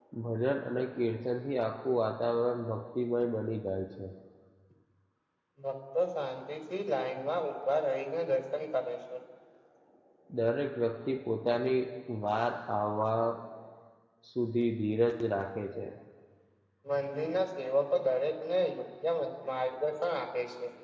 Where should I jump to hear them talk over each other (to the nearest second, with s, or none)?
none